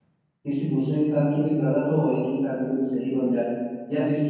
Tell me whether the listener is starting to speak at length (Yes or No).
No